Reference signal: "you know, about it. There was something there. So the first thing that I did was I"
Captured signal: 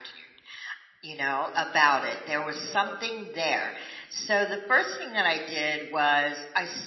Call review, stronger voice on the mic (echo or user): echo